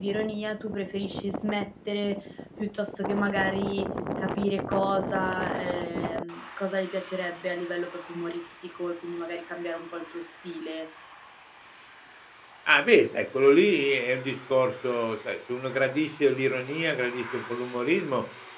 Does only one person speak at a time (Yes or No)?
Yes